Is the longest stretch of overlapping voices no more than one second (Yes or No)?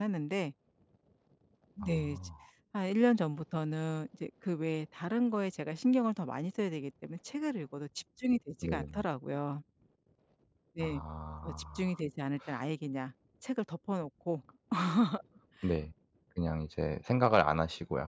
Yes